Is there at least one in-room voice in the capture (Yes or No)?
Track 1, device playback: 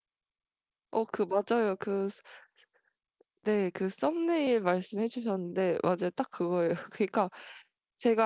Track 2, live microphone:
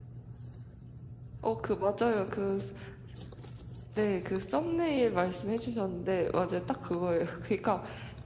No